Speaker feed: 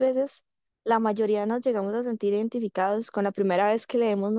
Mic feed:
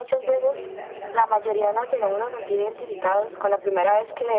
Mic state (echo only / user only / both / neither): both